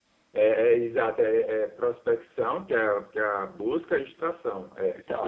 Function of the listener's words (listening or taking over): taking over